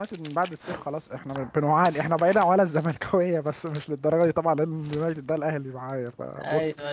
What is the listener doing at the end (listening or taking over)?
listening